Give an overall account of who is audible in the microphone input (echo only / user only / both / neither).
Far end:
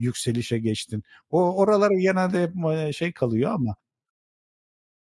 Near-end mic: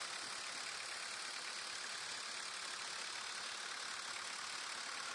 neither